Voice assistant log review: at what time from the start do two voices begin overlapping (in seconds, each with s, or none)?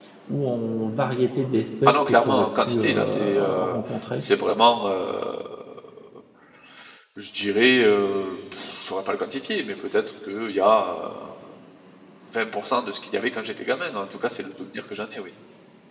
1.9 s